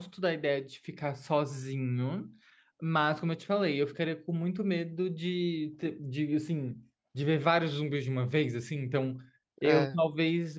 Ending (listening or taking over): listening